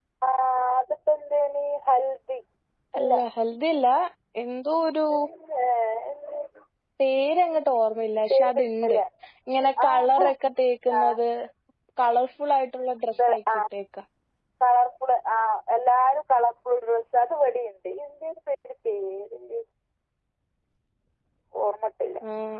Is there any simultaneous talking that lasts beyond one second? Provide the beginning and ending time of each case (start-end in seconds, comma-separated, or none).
none